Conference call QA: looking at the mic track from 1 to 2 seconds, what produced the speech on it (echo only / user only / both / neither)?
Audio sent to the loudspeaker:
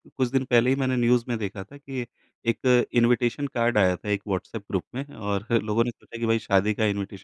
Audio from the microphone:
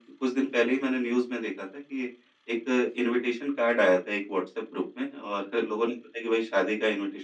echo only